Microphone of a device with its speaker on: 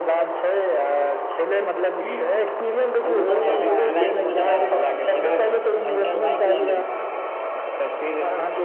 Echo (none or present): present